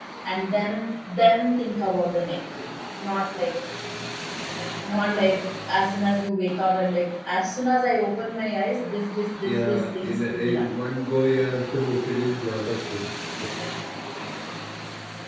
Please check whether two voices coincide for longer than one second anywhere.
Yes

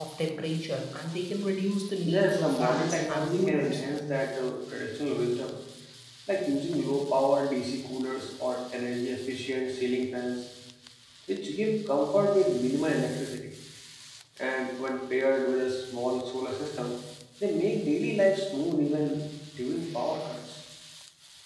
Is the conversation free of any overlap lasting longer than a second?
No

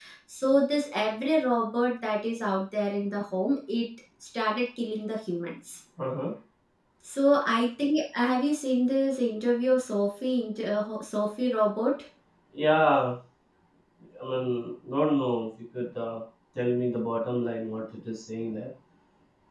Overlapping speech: No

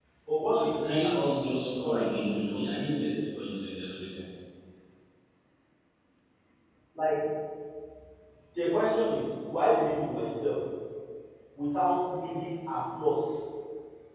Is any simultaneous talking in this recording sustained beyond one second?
Yes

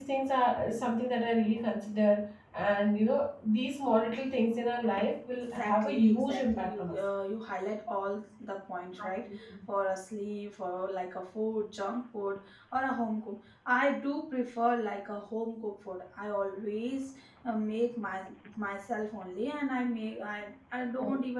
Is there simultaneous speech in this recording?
Yes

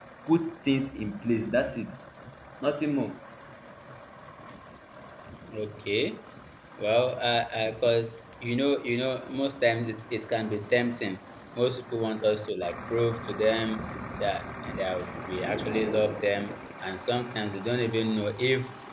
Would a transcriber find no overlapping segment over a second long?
Yes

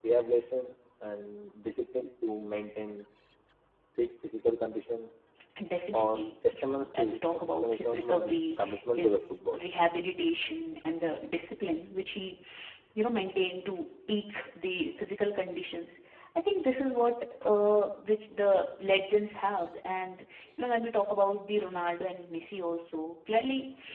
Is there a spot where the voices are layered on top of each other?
Yes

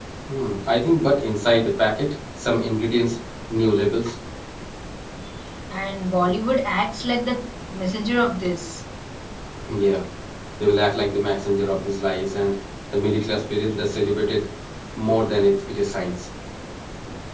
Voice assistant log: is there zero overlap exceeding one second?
Yes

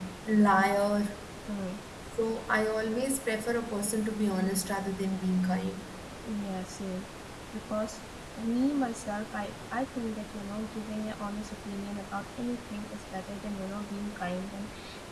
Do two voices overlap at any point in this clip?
No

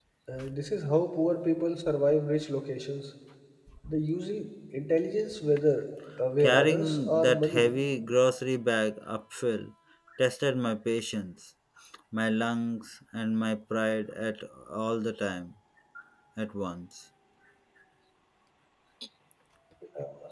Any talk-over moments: Yes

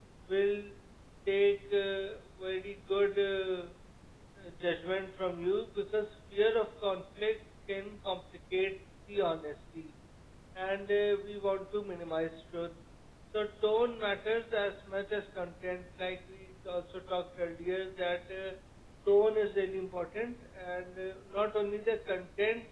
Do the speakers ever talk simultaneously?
No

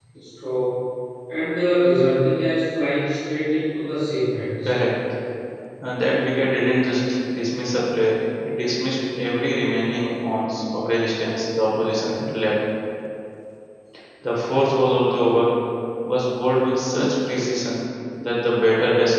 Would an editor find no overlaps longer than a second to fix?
Yes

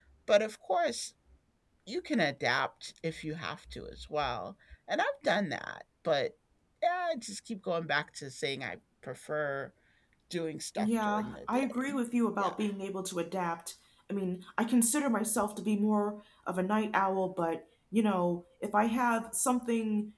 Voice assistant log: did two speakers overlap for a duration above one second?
Yes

